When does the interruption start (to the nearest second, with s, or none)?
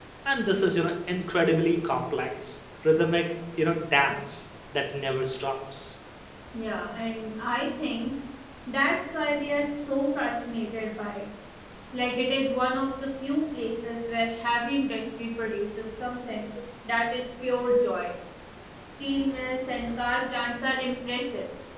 none